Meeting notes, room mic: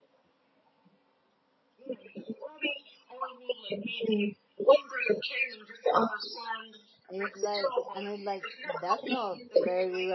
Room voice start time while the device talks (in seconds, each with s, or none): 7.1 s